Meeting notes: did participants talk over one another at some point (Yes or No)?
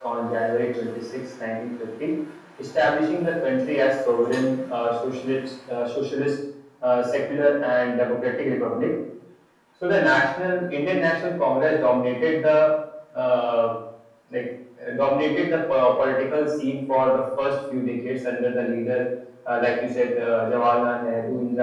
No